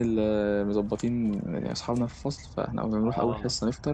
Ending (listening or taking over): listening